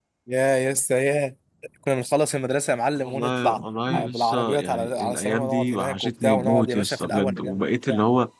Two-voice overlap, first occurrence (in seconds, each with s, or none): 3.0 s